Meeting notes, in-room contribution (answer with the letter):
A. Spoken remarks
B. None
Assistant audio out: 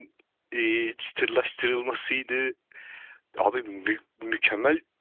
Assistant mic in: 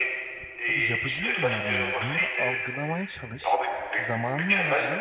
A